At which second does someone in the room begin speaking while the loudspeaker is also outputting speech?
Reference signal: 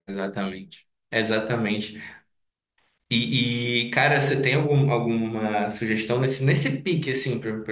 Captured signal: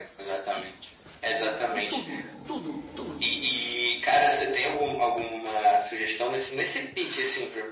1.3 s

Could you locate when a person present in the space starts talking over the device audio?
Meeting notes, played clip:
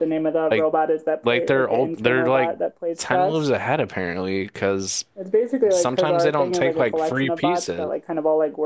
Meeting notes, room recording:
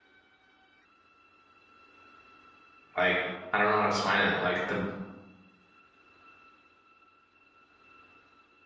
3.0 s

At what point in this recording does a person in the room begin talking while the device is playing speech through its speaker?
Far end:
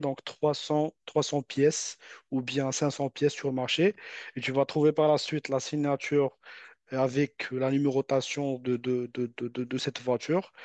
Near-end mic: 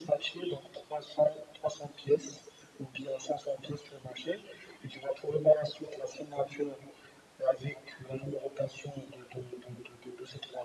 none

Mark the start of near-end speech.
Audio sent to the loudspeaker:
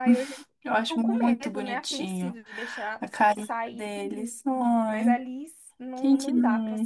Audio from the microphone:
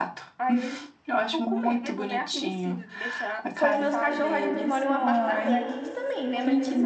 3.5 s

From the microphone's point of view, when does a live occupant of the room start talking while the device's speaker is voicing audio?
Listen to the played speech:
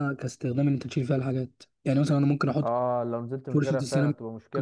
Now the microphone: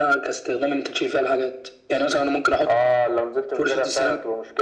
none

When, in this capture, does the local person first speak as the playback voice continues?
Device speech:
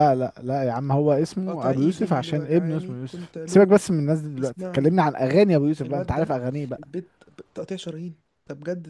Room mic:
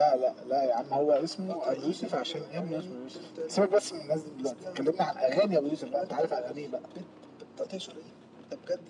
none

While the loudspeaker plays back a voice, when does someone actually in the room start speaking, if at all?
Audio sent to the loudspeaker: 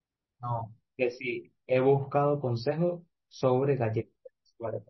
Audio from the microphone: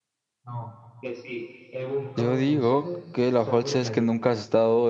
2.2 s

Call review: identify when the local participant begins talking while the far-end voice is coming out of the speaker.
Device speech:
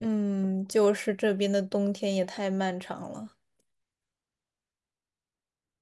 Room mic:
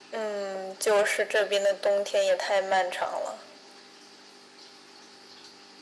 none

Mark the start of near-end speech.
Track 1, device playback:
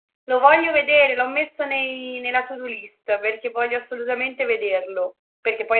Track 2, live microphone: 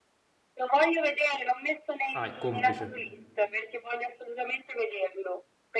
2.1 s

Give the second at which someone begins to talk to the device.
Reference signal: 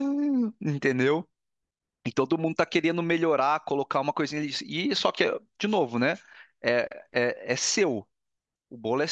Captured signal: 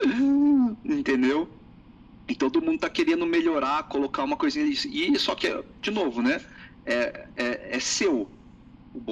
none

